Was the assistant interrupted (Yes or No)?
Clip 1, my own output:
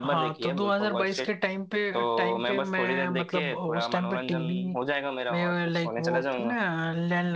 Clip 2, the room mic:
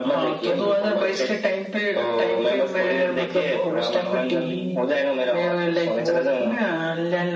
No